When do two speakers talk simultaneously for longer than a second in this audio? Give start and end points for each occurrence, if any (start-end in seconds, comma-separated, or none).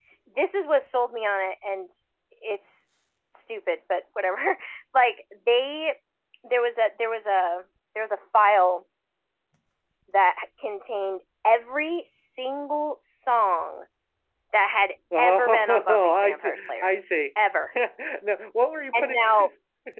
15.2-16.9